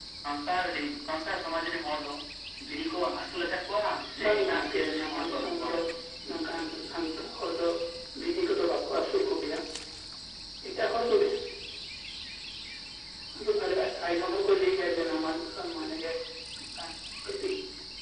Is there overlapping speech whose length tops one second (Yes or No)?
Yes